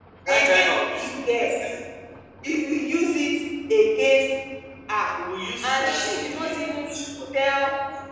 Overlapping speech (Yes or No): Yes